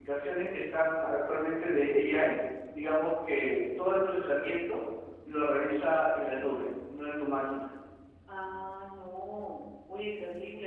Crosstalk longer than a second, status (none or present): none